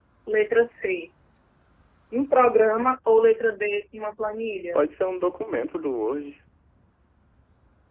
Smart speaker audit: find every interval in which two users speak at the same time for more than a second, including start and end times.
none

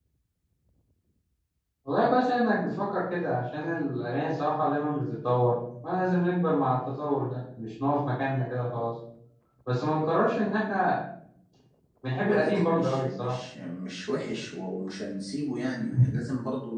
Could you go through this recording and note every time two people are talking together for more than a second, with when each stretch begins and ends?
12.1-13.4

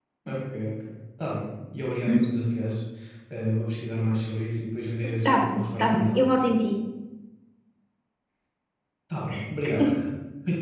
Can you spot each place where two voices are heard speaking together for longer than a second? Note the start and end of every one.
5.2-6.5

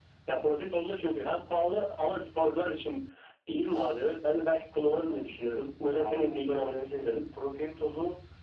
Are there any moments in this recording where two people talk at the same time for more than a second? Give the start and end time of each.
5.9-7.2

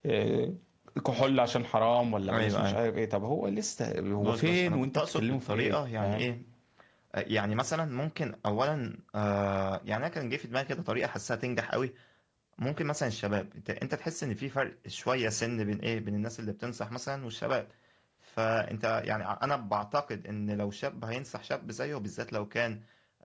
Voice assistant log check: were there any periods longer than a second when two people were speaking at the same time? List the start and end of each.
4.2-6.3

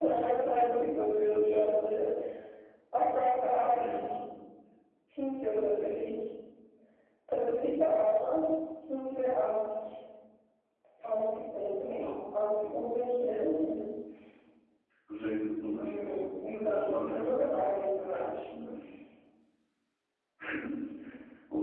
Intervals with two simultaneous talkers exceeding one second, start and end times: 15.8-17.2

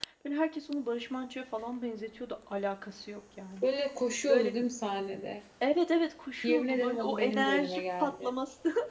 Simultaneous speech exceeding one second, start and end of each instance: 6.4-8.3

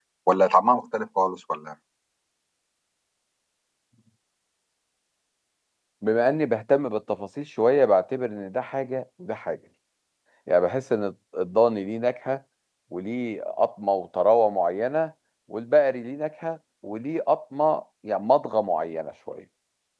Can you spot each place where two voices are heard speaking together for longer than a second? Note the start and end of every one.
none

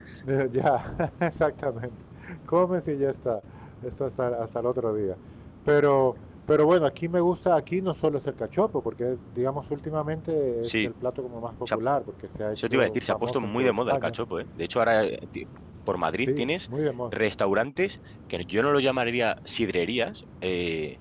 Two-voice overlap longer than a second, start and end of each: 12.7-14.2

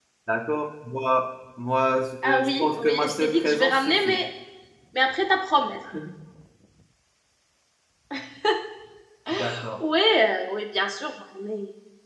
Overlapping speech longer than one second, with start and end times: 2.2-4.2

